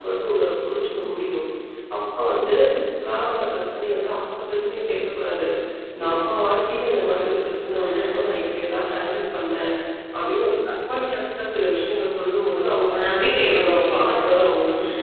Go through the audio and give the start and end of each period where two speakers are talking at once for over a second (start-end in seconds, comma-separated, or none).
12.9-14.2